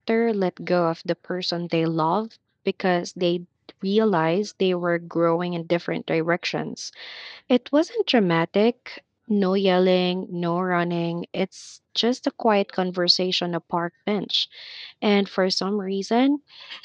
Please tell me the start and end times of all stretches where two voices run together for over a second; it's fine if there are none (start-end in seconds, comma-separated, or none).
none